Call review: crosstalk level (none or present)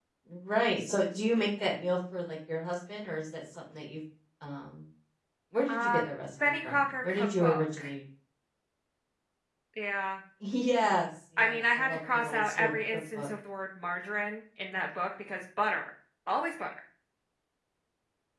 present